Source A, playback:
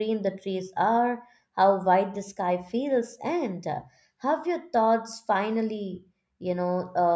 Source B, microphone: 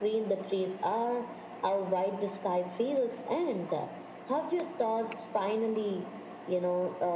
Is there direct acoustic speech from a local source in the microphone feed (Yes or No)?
No